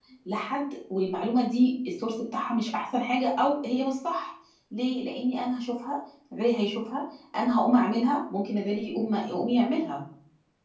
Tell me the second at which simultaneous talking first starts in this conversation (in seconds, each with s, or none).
none